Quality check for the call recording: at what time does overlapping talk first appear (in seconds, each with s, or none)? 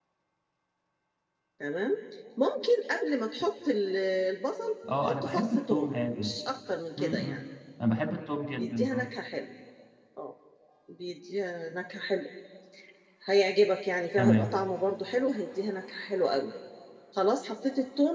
5.0 s